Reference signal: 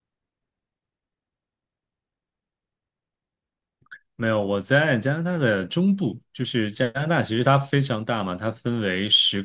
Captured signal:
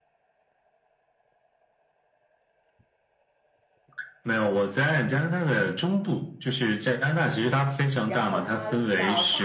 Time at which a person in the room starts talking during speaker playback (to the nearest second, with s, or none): 8 s